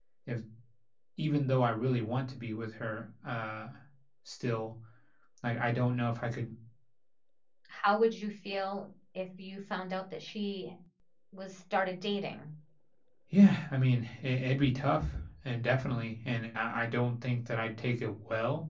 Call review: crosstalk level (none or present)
none